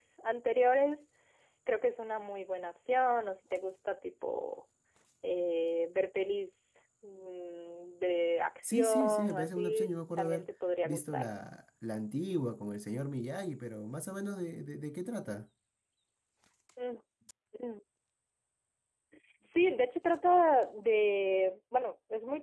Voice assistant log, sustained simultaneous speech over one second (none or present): present